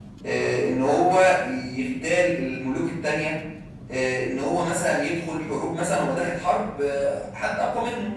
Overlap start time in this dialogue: none

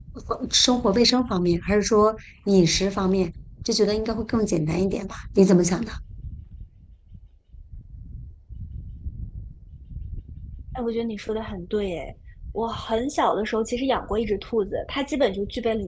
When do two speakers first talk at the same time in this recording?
none

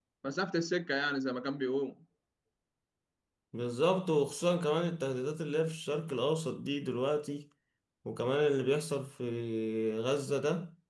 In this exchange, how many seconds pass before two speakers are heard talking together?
none

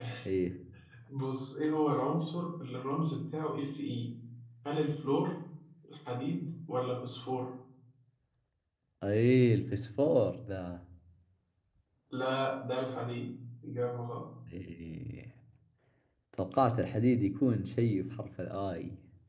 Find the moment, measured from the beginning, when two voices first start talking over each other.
none

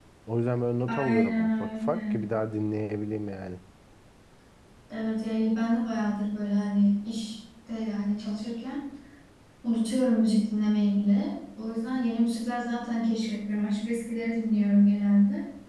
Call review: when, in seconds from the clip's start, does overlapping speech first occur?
1 s

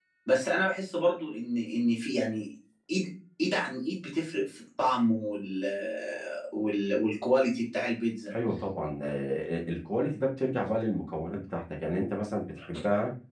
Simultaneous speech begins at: none

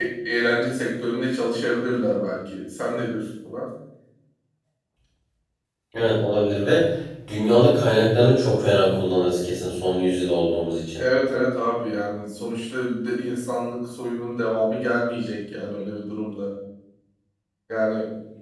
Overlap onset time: none

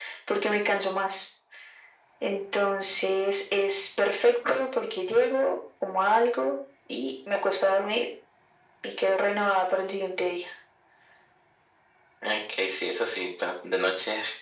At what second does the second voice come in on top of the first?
none

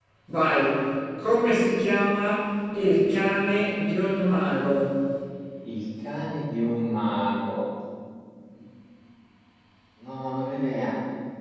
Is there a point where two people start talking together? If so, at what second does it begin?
none

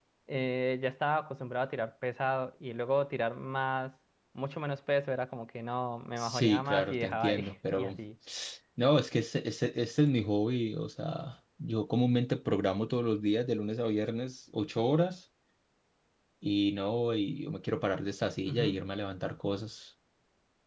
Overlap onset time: 6 s

